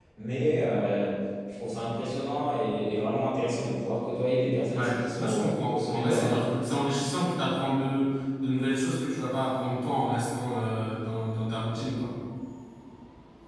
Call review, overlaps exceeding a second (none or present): present